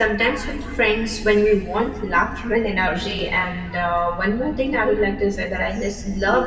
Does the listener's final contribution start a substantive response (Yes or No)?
No